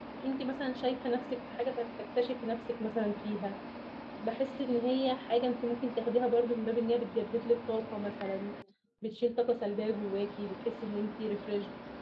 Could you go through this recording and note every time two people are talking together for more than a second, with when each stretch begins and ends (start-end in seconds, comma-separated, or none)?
none